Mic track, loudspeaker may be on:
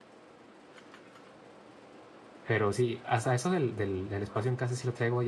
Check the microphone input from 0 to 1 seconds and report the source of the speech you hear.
neither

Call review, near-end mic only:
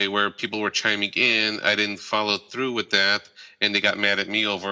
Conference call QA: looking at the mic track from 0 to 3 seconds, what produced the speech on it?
echo only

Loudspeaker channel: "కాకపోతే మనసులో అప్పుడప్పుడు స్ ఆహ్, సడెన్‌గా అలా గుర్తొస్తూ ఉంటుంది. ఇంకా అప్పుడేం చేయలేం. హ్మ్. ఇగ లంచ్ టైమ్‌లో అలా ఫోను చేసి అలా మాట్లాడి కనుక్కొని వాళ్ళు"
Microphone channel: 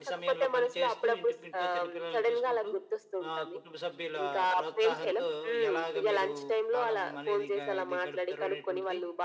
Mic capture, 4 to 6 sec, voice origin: both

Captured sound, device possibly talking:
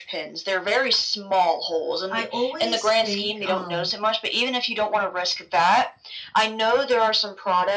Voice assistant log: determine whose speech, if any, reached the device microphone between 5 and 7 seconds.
echo only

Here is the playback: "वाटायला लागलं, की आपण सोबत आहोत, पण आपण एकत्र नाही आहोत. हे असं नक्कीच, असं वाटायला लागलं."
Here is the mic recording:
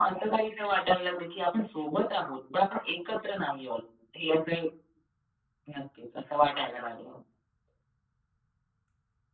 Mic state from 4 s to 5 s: echo only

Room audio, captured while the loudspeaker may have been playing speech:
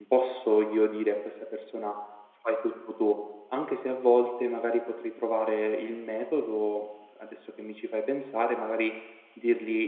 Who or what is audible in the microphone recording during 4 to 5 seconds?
user only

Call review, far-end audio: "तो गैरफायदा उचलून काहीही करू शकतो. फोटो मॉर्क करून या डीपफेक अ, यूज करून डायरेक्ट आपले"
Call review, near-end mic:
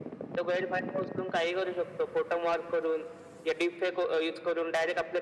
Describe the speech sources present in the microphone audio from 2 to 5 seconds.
echo only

